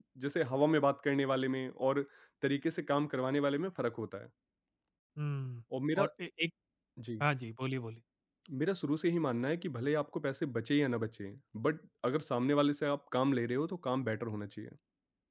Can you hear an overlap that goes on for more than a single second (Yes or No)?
No